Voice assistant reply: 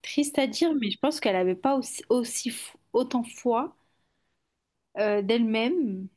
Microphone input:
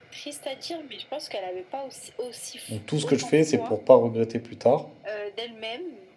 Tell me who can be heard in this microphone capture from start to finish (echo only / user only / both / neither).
both